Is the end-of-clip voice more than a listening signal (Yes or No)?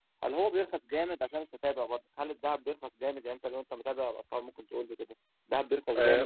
Yes